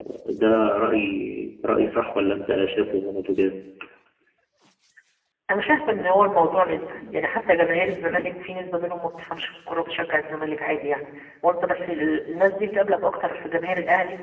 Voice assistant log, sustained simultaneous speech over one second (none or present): none